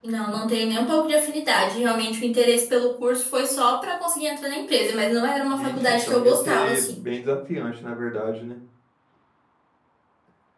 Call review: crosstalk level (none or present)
present